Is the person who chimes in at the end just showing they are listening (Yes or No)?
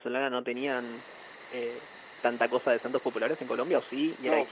No